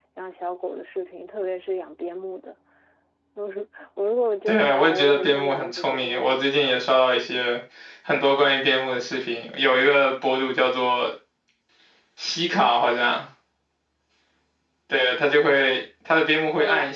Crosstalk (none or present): present